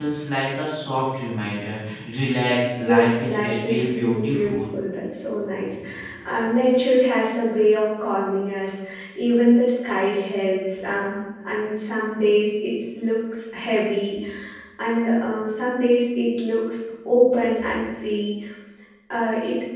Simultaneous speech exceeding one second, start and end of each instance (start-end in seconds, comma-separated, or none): 2.8-4.6